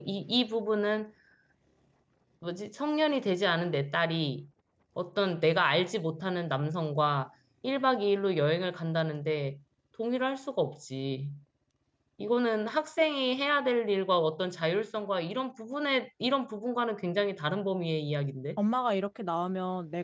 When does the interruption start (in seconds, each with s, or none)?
none